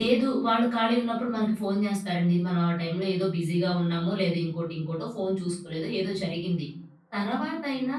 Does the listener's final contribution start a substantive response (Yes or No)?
No